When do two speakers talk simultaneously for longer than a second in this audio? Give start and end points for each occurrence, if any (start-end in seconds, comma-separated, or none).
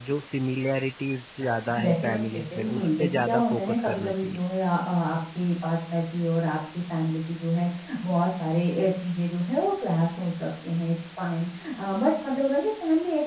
1.8-4.4